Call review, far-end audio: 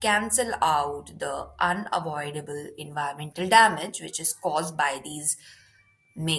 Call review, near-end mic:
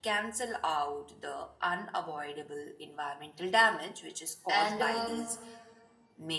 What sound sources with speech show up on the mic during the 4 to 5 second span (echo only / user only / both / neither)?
both